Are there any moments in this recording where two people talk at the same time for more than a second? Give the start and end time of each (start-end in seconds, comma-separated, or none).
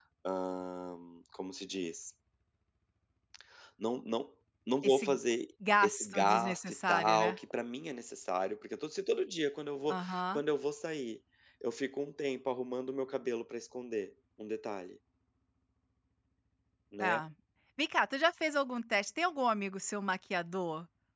5.8-7.4